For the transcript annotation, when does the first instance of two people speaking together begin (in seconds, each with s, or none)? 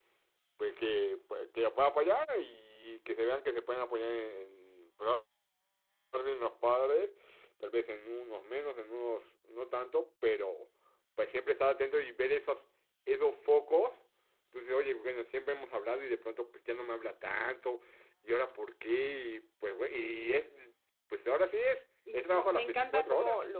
22.1 s